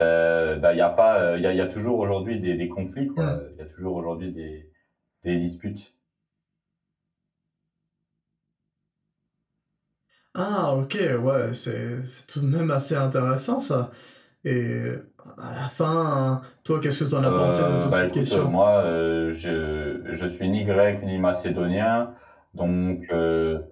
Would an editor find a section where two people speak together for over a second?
Yes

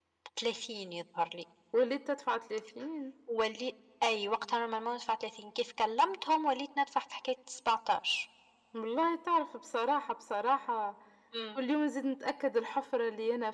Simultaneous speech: No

